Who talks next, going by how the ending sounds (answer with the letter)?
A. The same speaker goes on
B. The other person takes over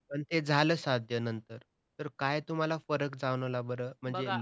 A